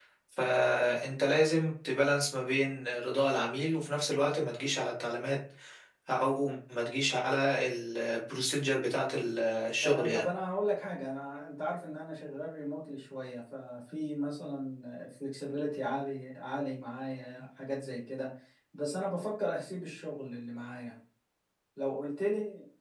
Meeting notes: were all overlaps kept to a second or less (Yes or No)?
Yes